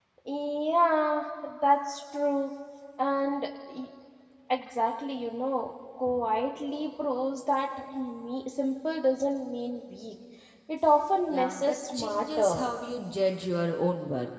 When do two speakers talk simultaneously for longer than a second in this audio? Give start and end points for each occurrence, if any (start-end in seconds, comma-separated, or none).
11.3-12.7